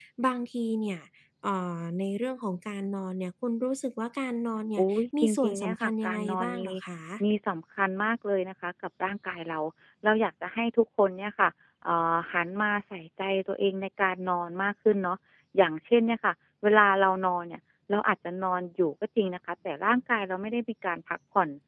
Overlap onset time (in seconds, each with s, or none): 4.8 s